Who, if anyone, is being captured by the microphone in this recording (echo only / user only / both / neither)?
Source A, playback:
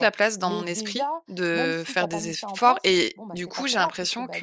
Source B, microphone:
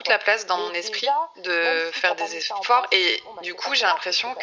echo only